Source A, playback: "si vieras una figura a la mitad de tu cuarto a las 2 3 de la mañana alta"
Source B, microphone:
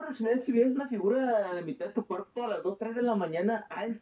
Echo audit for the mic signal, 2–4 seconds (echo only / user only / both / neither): echo only